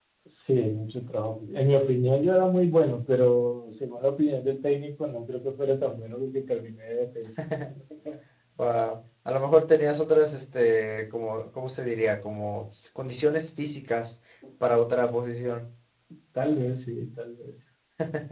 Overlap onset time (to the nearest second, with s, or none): none